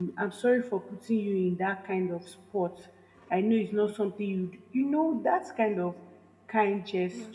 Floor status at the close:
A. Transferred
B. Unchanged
A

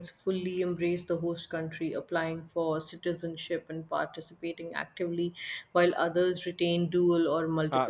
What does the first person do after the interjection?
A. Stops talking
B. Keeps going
A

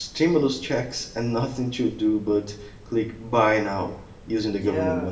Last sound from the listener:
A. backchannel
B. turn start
B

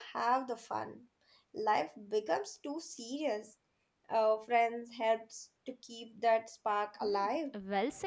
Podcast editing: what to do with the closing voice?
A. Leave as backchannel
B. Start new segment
B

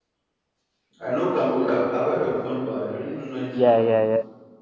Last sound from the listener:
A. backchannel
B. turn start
B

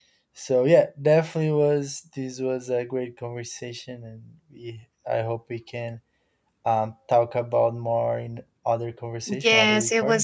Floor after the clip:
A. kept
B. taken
B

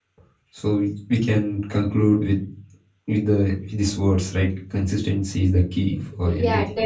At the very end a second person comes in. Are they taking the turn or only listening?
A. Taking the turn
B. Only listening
A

